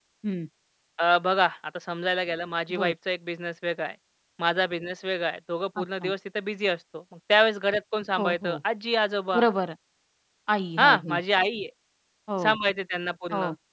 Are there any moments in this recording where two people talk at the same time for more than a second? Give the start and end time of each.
none

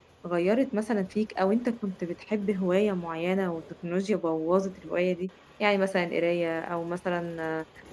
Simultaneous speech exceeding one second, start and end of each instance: none

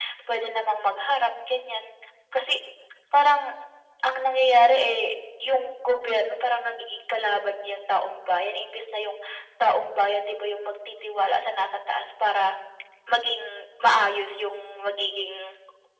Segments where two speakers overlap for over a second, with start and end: none

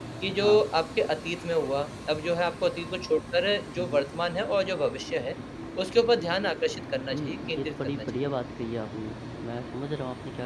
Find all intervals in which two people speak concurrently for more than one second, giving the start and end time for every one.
7.1-8.3

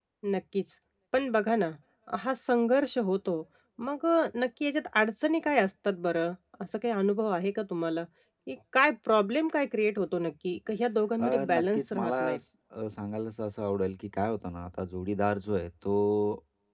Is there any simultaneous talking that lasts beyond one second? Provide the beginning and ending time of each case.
11.2-12.4

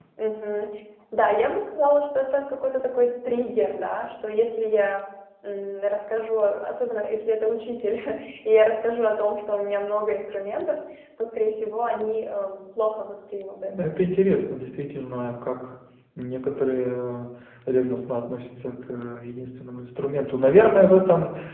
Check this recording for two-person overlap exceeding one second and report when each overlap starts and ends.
none

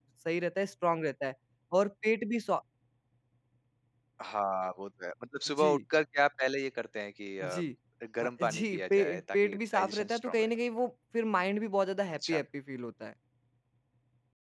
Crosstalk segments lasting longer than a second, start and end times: 8.2-10.5

